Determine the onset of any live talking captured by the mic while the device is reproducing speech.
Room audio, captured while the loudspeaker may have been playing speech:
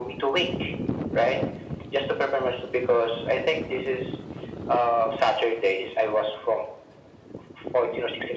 none

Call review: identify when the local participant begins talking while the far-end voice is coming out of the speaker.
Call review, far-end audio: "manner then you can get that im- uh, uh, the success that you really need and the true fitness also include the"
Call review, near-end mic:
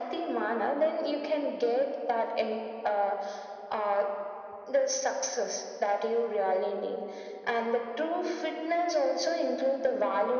none

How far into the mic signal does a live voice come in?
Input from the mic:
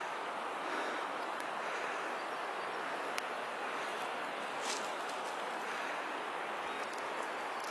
none

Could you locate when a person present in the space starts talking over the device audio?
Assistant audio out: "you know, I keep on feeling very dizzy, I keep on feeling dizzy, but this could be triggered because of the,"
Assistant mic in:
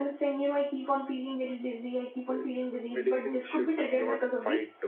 2.3 s

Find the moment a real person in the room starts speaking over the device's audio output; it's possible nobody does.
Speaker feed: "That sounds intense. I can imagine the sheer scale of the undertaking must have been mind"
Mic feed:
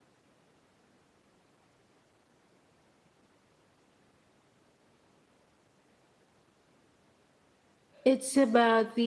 8.1 s

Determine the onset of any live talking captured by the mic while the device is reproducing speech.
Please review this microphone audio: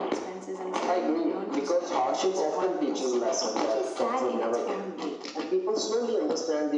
none

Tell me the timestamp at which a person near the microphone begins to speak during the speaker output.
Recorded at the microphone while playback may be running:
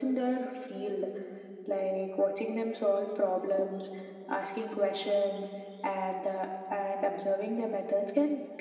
none

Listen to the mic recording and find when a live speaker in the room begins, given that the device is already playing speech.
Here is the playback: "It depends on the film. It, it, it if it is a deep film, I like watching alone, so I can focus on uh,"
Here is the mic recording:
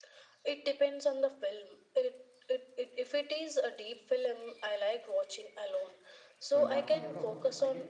6.5 s

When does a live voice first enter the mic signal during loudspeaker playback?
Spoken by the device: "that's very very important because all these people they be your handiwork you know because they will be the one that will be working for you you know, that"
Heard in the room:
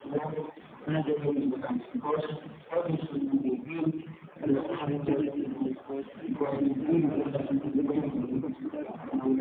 4.4 s

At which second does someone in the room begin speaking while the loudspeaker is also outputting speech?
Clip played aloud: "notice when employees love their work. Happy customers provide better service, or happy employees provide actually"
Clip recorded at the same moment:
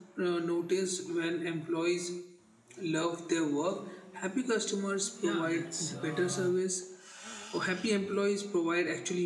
5.2 s

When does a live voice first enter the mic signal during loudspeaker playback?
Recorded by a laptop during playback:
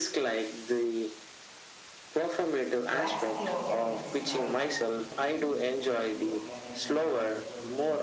2.7 s

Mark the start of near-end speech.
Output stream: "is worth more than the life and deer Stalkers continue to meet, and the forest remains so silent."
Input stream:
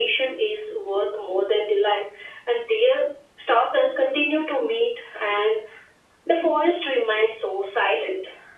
none

